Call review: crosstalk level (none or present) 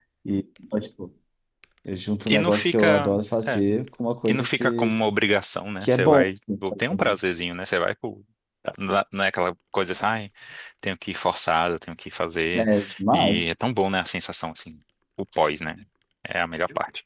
present